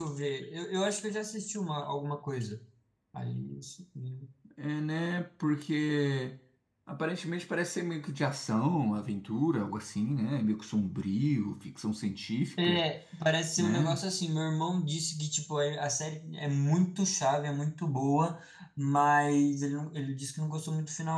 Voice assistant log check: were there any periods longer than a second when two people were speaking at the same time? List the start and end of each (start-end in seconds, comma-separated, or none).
none